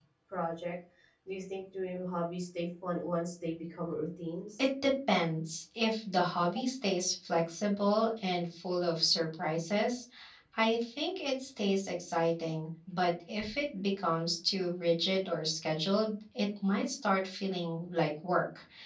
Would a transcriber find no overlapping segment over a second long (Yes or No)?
Yes